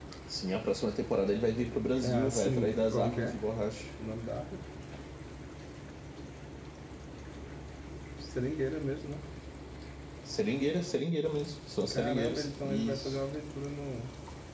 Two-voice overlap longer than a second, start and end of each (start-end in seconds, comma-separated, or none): 2.0-3.4, 11.9-13.2